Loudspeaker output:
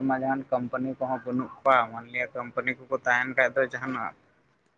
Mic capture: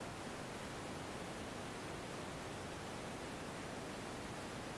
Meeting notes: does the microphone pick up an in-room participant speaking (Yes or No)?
No